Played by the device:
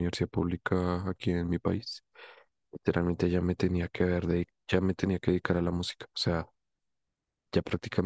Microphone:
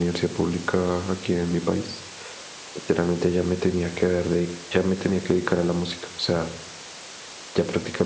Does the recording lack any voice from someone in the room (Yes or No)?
Yes